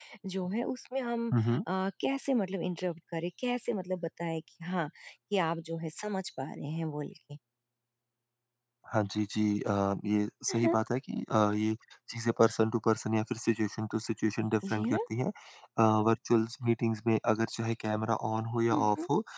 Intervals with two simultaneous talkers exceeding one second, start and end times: none

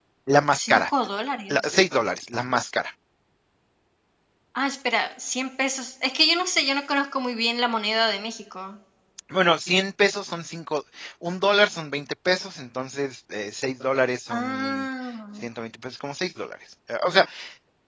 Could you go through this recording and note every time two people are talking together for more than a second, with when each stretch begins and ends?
none

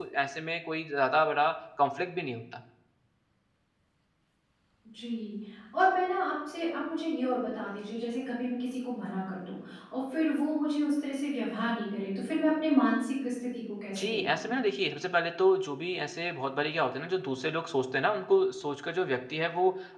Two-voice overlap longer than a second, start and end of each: none

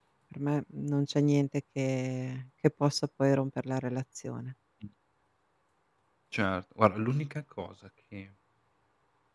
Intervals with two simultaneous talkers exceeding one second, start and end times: none

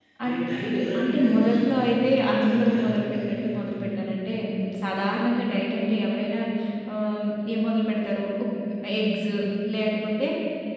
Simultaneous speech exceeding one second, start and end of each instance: 1.0-3.7

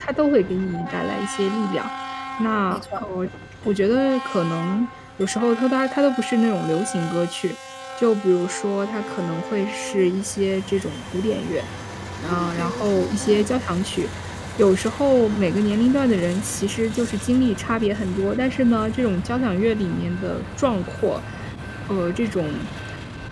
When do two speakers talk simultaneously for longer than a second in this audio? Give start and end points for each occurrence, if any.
12.2-13.5

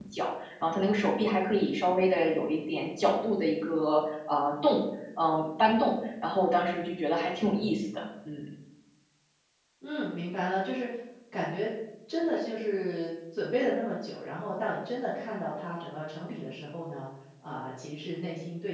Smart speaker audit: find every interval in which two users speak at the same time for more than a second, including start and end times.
none

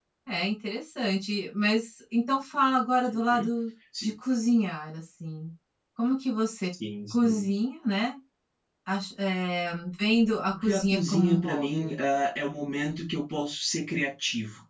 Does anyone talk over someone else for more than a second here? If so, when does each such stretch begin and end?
10.5-11.9

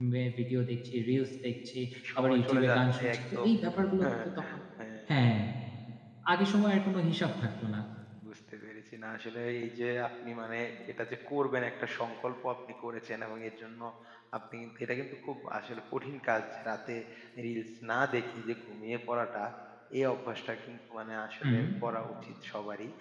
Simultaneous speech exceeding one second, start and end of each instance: 2.2-3.5

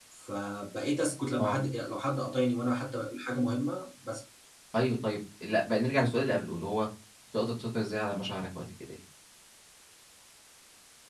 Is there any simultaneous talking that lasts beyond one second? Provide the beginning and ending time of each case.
none

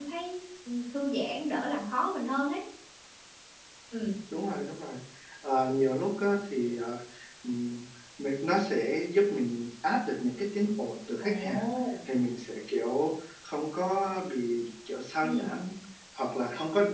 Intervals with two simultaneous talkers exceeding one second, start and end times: none

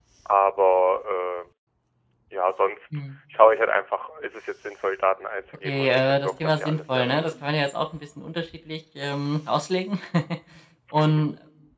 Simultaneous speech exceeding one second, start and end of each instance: 5.6-7.3

